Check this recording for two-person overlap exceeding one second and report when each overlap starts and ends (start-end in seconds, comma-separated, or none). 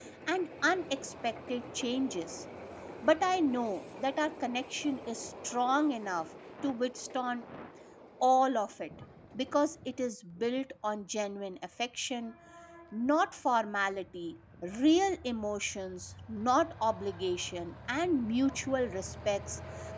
none